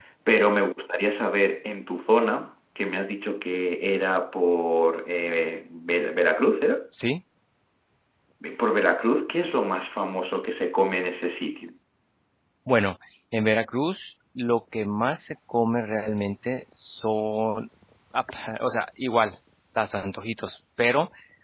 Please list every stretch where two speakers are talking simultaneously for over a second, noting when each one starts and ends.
none

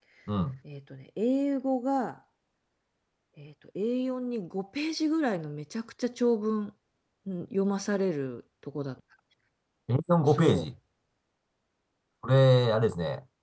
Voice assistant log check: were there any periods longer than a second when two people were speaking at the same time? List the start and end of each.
none

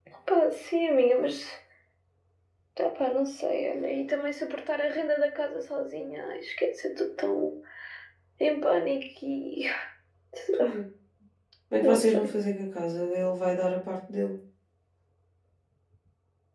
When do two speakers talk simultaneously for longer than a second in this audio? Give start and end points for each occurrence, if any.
none

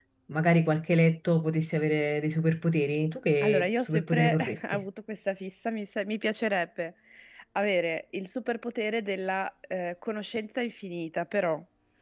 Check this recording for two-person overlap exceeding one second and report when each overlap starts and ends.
3.4-4.8

